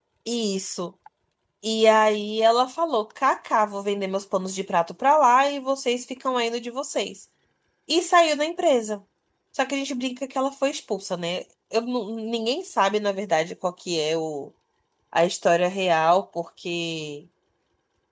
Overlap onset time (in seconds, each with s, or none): none